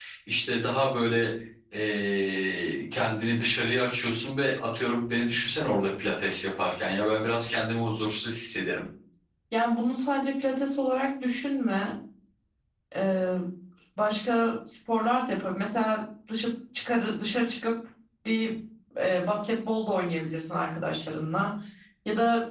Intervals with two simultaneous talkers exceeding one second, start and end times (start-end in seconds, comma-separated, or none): none